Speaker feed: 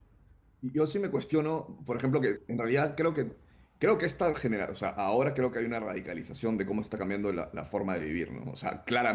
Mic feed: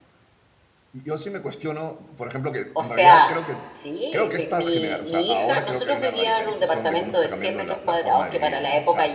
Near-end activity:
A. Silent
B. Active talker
B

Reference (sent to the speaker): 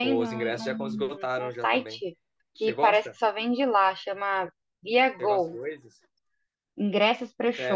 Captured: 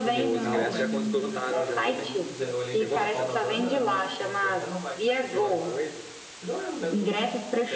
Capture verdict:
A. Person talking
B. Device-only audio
A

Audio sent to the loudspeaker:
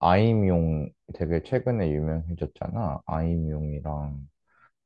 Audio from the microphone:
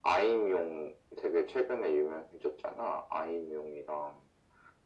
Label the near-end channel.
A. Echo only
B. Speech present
A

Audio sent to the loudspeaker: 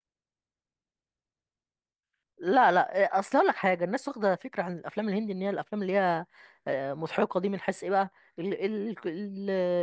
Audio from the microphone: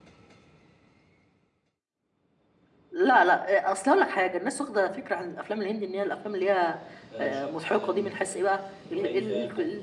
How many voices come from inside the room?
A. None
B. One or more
B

